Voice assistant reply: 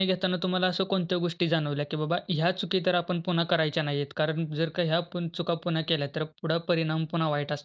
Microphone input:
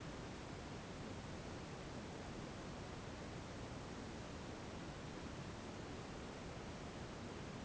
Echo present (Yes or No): No